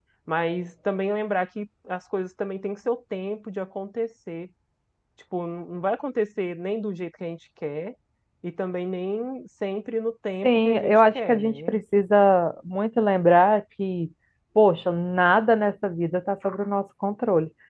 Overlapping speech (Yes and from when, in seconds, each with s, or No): Yes, from 10.4 s